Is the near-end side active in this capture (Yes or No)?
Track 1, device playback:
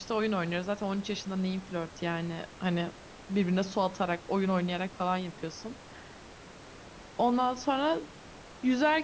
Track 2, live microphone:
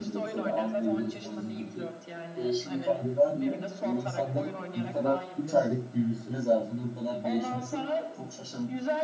Yes